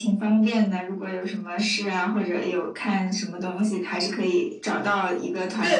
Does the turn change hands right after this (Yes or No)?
Yes